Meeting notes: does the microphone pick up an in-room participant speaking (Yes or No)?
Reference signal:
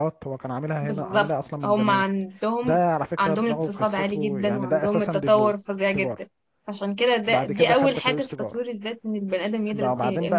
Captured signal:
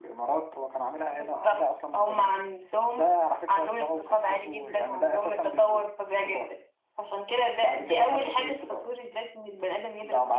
No